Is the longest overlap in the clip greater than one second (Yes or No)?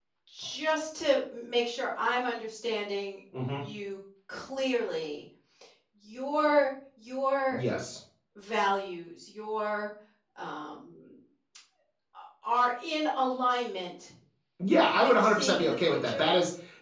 Yes